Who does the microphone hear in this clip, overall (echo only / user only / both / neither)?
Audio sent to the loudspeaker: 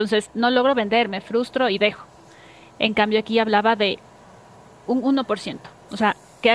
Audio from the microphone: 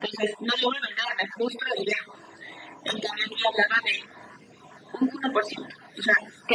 echo only